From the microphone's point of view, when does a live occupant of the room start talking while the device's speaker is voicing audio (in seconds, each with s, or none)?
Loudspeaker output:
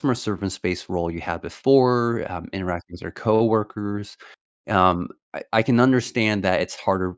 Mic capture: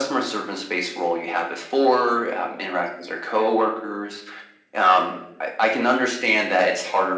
none